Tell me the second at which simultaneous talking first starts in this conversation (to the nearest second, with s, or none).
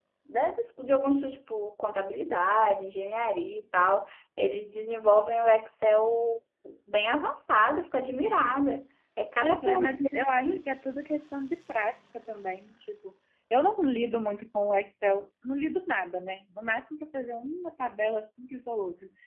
9 s